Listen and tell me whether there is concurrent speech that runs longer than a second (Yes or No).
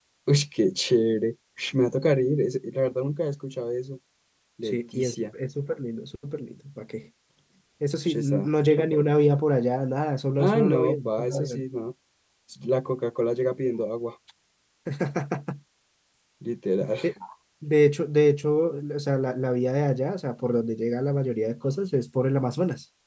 Yes